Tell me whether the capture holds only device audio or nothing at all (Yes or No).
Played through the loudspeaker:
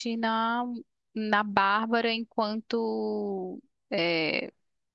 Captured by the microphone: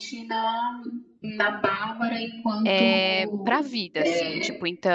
No